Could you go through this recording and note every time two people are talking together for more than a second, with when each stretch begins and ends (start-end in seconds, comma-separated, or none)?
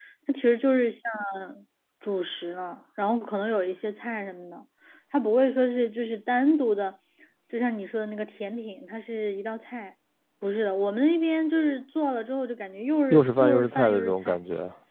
13.1-14.4